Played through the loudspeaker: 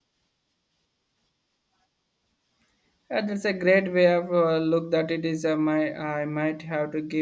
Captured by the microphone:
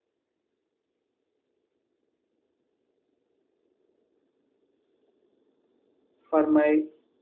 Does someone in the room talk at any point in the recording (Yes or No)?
Yes